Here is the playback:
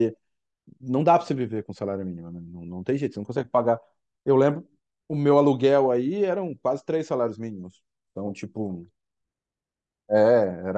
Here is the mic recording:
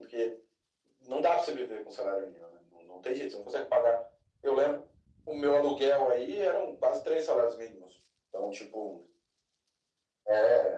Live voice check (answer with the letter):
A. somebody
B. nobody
B